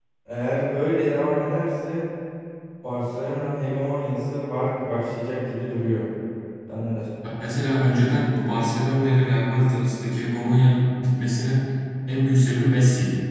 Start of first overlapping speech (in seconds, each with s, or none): none